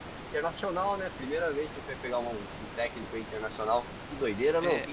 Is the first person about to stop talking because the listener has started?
Yes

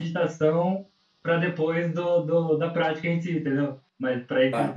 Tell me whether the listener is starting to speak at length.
No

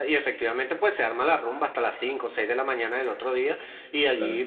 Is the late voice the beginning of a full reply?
No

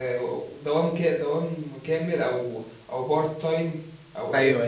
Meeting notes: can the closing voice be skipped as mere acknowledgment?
No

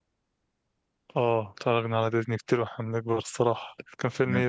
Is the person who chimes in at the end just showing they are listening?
No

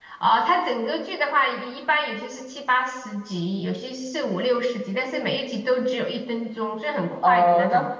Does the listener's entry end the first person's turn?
Yes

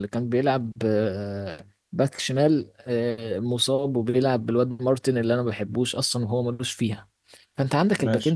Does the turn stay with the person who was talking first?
Yes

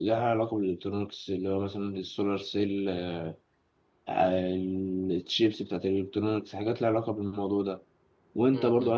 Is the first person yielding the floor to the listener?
No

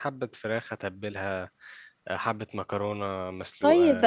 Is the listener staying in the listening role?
No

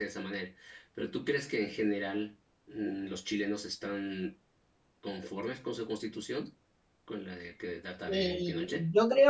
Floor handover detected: Yes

